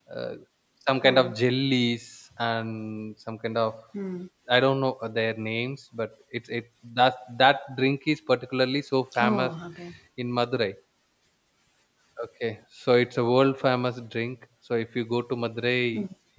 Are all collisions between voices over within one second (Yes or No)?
Yes